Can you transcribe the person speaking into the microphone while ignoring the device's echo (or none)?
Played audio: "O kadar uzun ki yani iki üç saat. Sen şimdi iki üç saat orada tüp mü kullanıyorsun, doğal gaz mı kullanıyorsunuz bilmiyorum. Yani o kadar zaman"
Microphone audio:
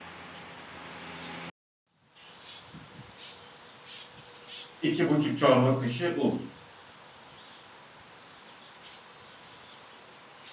İki buçuk çorba kaşığı un.